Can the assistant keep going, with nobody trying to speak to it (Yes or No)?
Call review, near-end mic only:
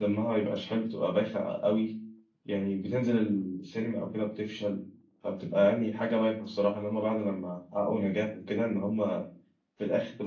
No